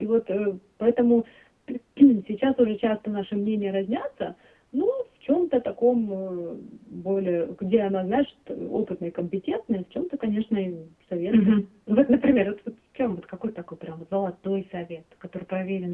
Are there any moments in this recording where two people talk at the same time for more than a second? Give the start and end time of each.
none

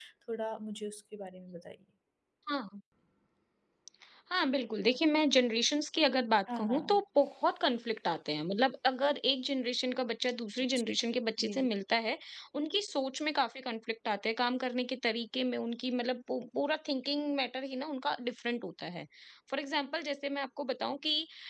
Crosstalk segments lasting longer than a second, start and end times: none

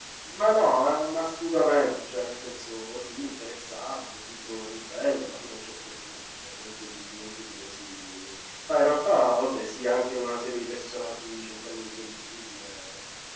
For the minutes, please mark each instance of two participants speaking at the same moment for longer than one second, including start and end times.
none

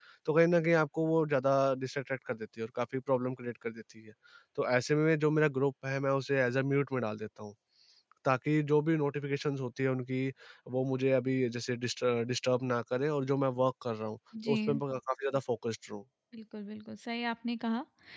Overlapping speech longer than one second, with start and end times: none

